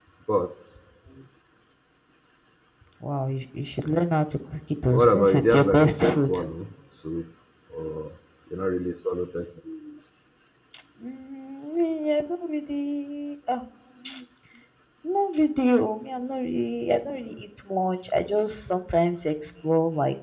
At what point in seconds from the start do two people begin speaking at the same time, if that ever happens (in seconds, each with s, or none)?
4.9 s